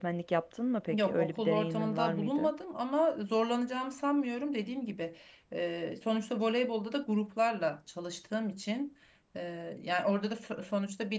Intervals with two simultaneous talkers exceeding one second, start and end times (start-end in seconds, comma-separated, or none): 0.9-2.5